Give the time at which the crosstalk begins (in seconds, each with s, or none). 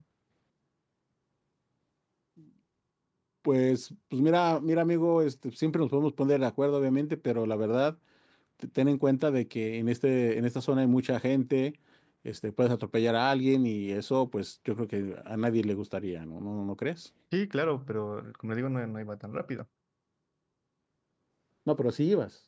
none